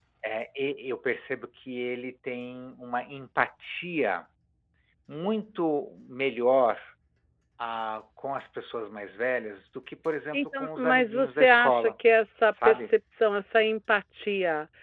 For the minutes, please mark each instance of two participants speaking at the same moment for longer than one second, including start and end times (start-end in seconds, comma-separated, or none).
10.3-11.9